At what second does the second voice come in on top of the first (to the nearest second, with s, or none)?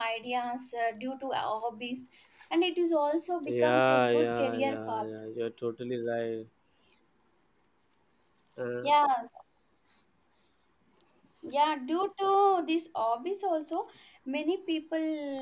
3 s